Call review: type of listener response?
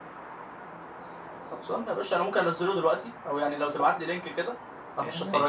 taking over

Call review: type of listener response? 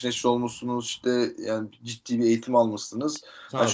listening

